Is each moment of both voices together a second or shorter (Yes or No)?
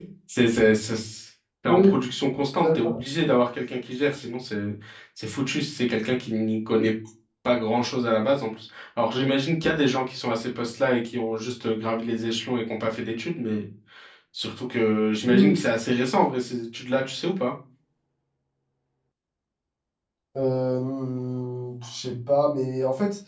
Yes